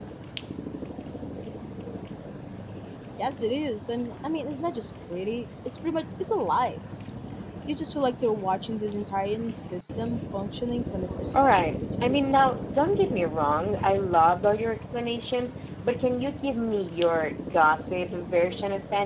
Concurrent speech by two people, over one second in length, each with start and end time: 11.3-12.6

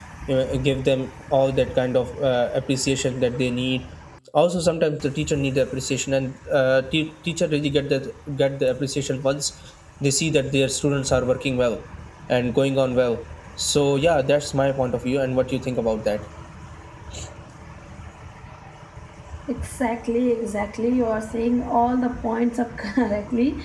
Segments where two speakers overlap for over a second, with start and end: none

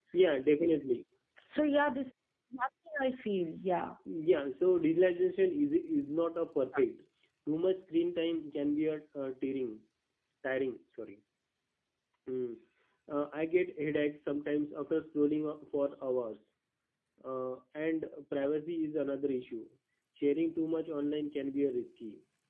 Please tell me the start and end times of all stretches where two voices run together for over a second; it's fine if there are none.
none

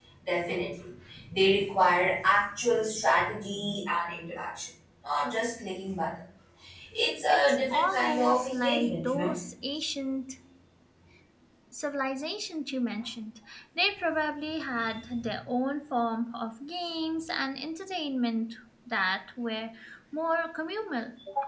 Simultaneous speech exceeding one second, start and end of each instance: 7.3-9.3

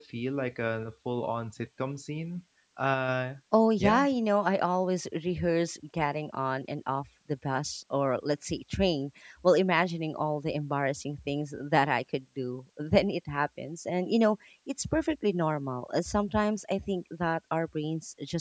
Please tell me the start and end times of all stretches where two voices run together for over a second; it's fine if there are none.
none

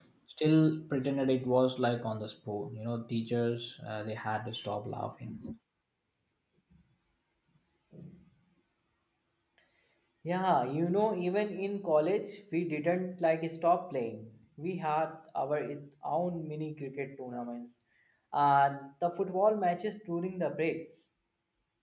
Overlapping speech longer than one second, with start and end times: none

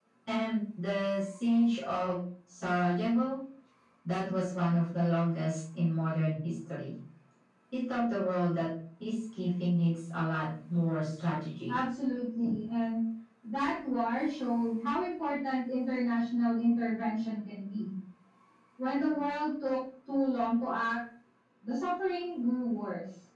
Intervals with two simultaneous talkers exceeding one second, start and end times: none

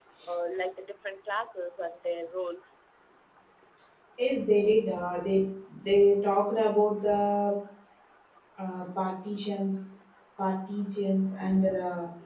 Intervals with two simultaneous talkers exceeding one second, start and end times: none

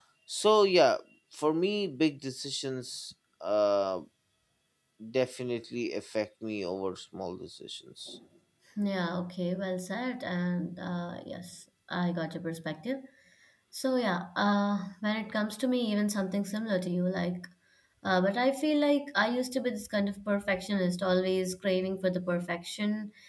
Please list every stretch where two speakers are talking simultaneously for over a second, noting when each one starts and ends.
none

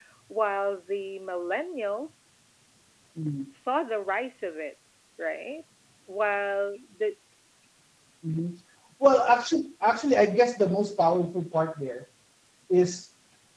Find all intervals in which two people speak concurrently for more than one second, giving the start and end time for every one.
none

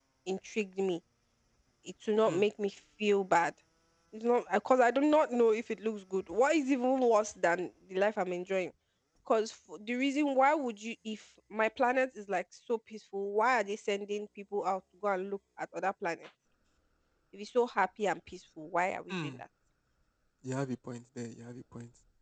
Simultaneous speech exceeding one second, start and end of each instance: none

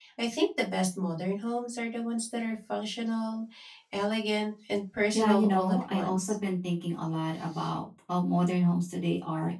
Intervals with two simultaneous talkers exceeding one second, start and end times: 5.1-6.3

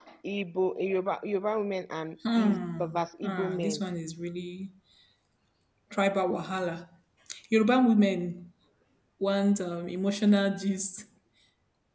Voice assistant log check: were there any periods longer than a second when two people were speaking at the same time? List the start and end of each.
2.4-3.8

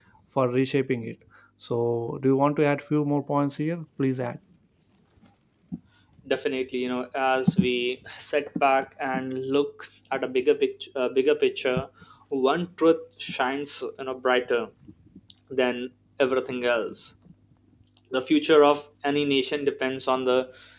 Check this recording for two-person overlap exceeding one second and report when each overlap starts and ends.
none

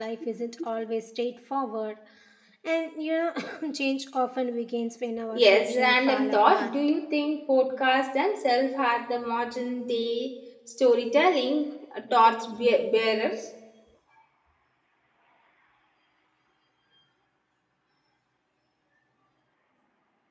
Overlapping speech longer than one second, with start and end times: 5.3-6.7

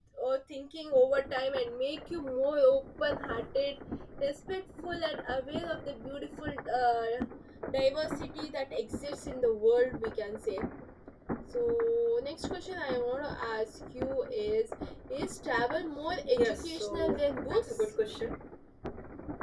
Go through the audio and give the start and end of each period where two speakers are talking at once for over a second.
16.3-17.9

